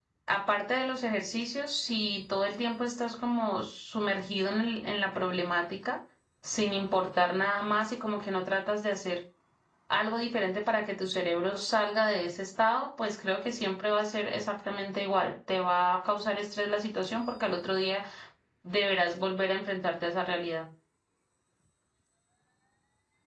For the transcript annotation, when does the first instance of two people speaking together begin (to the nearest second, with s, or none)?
none